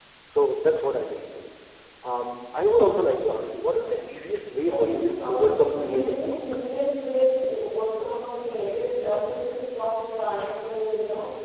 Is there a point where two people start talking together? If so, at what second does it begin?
4.7 s

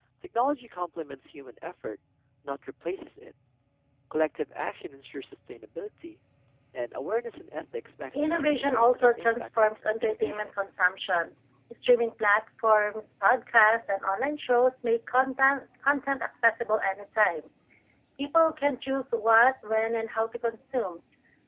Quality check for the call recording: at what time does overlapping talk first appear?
8.1 s

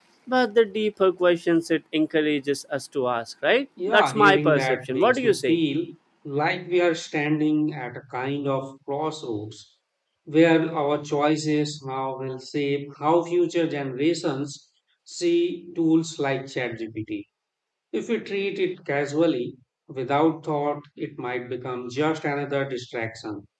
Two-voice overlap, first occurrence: 3.8 s

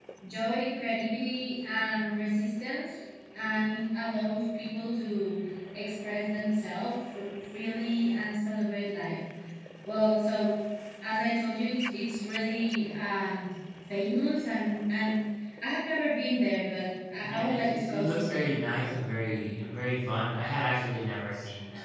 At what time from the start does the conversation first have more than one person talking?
17.2 s

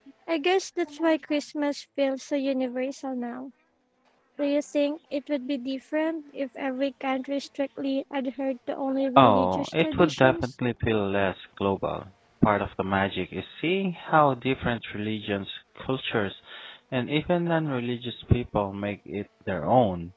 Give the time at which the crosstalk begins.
9.2 s

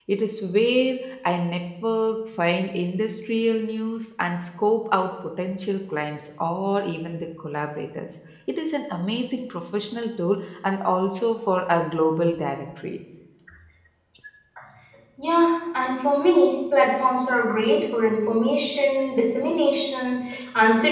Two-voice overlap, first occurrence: none

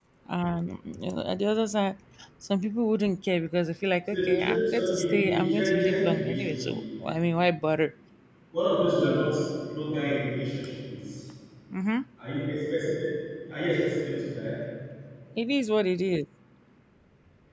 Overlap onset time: 4.1 s

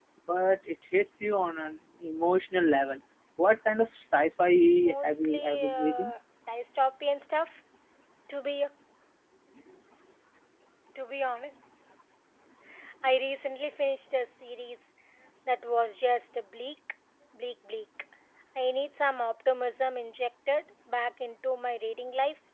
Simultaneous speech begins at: 4.8 s

